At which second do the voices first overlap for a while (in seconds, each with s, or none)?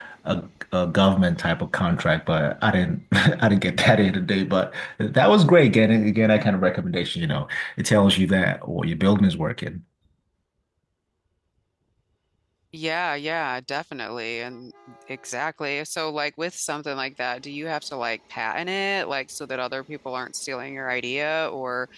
none